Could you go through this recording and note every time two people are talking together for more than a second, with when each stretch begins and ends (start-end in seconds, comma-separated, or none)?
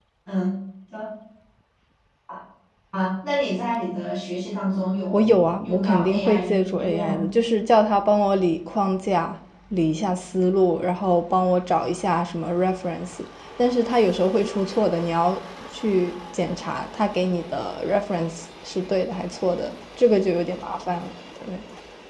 5.1-7.2